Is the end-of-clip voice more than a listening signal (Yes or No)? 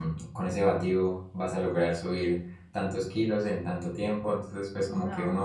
No